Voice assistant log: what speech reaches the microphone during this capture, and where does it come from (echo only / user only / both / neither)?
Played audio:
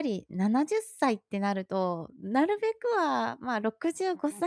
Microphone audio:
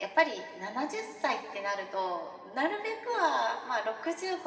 echo only